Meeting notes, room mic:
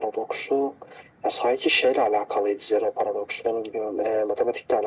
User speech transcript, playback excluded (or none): none